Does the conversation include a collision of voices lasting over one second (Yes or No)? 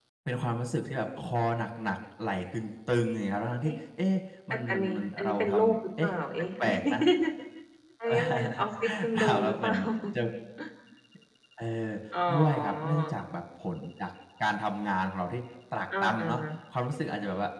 Yes